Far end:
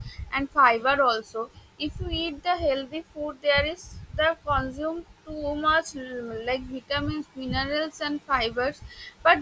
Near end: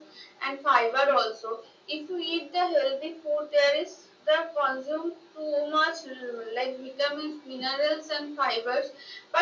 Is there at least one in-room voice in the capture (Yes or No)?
No